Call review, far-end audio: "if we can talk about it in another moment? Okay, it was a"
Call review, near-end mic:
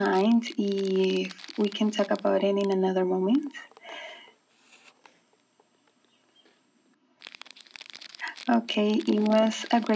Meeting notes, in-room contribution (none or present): none